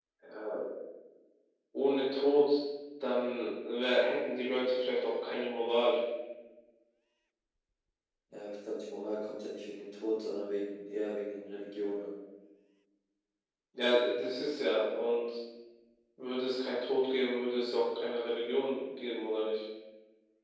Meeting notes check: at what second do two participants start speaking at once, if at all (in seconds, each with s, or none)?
none